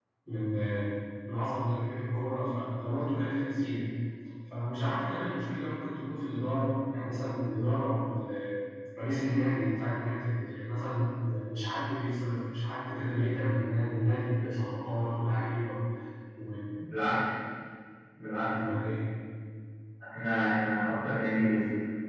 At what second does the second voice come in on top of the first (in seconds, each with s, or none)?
none